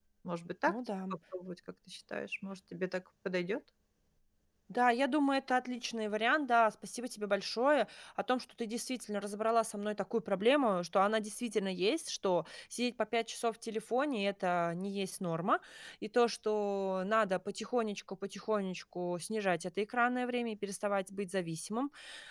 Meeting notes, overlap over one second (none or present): none